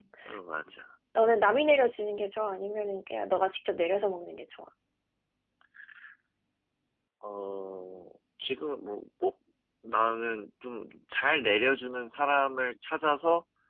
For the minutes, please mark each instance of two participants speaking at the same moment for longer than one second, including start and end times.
none

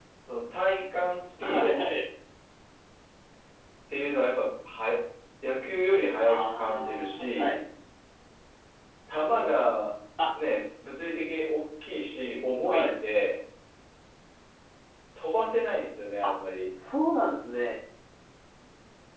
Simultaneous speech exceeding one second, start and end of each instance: 6.2-7.5

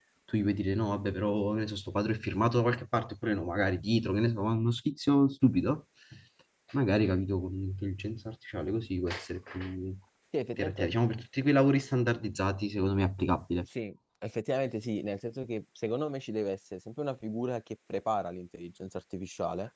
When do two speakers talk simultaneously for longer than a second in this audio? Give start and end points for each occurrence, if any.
none

